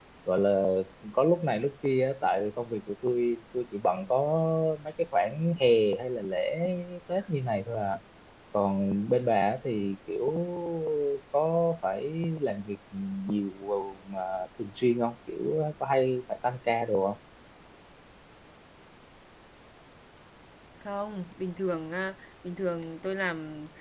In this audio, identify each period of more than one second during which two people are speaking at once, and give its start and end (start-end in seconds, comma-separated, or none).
none